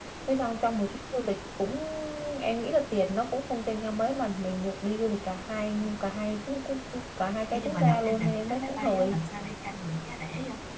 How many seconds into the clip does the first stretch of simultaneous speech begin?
7.5 s

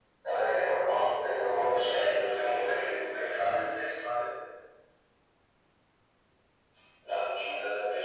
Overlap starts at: 1.4 s

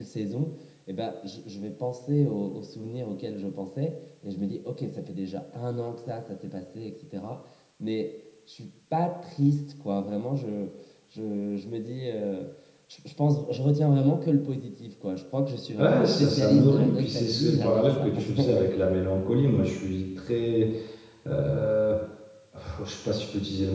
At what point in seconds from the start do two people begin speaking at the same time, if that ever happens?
15.8 s

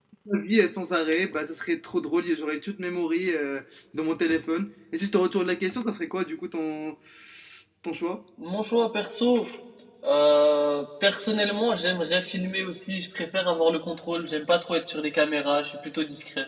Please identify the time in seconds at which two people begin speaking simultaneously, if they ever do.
none

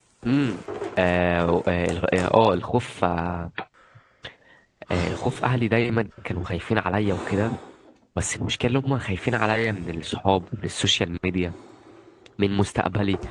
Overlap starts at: none

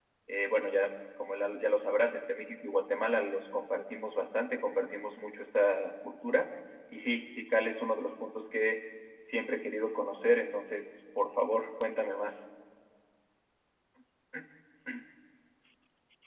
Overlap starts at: none

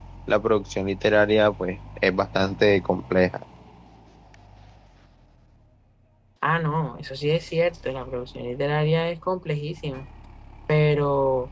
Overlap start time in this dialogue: none

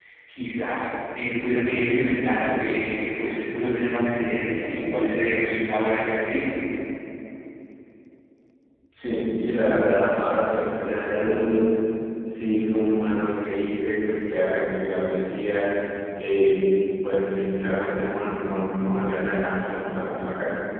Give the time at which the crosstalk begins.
none

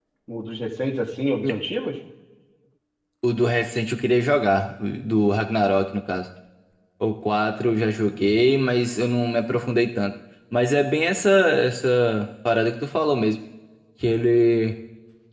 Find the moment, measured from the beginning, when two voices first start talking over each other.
none

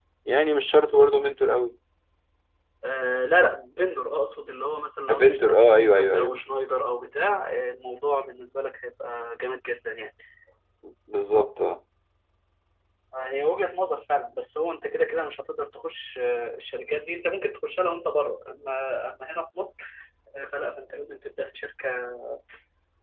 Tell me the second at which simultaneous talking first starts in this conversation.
5.1 s

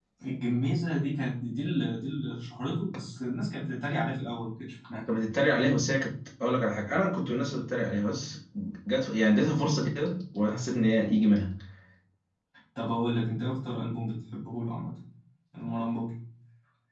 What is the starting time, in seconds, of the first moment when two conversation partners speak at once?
none

